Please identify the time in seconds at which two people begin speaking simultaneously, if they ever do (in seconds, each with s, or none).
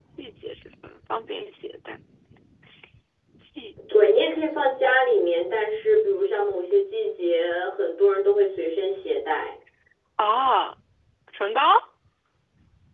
none